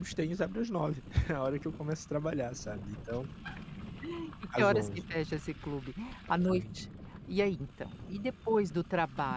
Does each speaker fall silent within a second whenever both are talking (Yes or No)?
Yes